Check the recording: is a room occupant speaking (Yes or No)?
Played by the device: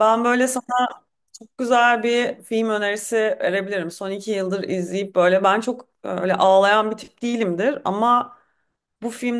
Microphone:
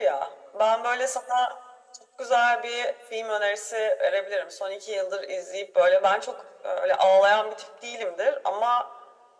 No